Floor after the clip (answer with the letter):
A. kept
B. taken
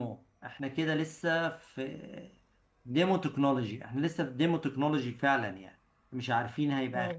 A